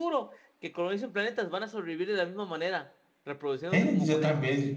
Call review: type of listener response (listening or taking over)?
taking over